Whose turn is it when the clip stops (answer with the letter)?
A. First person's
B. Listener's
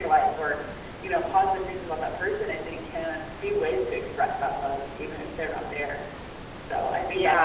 B